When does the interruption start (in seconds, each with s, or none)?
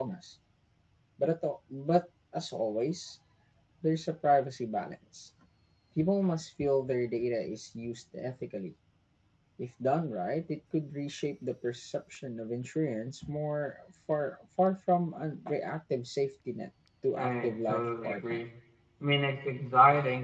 17.1 s